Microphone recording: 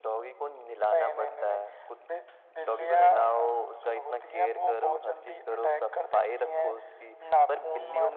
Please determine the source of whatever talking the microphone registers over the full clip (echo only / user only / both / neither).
echo only